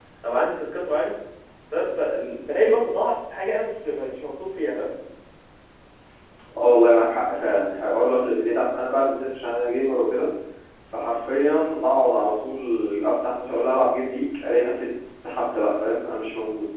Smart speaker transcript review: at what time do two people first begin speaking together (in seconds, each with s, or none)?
none